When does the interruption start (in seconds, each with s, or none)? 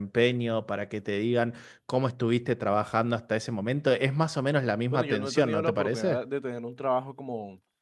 4.9 s